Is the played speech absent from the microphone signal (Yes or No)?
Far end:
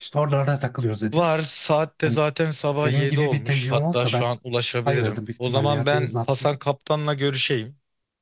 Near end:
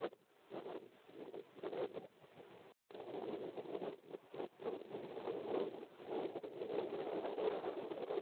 Yes